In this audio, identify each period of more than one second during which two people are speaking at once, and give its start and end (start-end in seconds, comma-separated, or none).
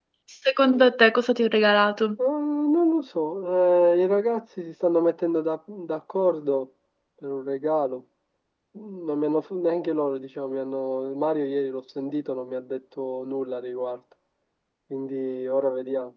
none